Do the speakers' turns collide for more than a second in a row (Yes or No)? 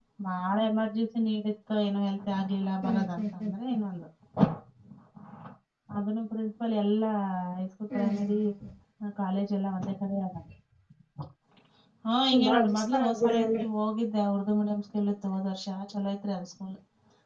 Yes